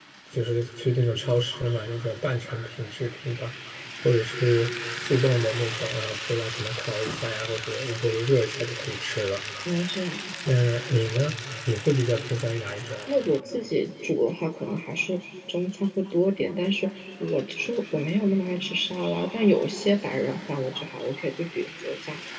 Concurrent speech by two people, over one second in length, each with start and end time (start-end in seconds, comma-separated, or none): none